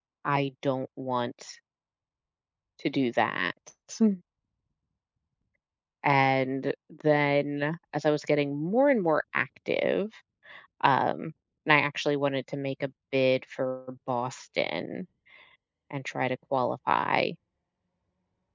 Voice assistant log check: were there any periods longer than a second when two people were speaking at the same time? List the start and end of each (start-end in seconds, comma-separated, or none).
none